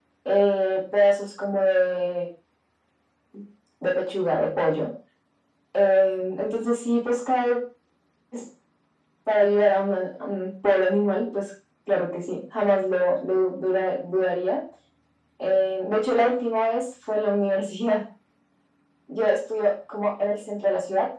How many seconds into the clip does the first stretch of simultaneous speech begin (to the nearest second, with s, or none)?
none